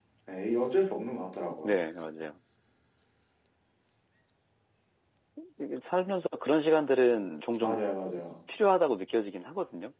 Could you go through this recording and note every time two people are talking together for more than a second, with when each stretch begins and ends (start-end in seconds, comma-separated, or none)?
none